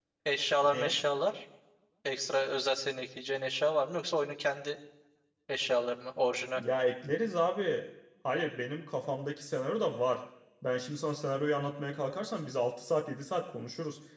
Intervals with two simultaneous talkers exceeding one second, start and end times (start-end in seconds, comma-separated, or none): none